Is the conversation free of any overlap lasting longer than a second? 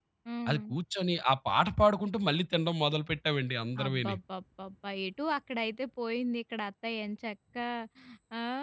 Yes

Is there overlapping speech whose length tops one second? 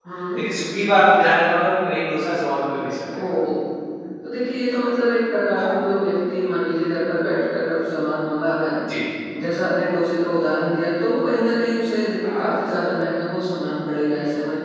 No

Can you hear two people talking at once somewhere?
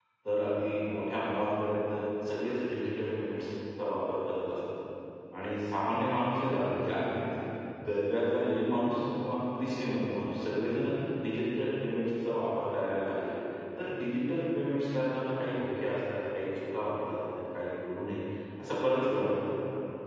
No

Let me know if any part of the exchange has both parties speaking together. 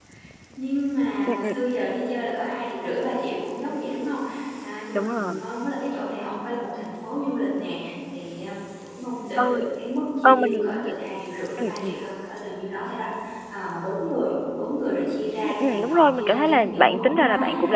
Yes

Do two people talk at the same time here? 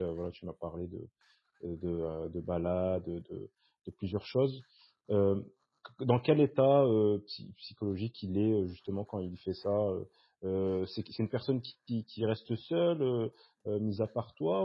No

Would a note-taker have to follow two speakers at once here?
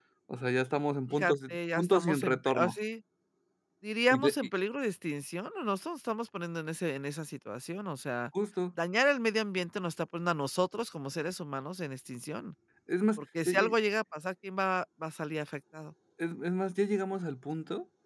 Yes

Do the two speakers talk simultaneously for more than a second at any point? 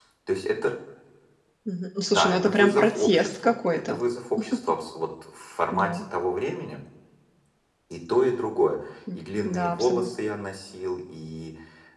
Yes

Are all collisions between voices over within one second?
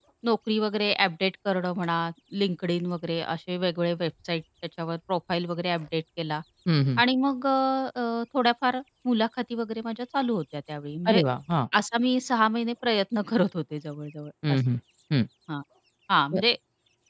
Yes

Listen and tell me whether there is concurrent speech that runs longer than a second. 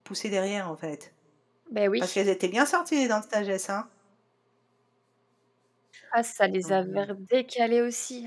No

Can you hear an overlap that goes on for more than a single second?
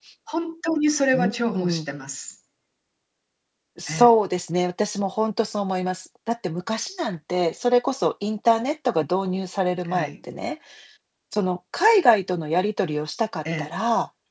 No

